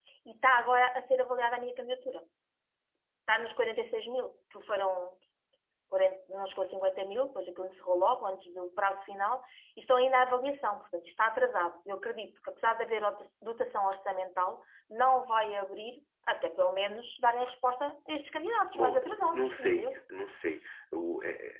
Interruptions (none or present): present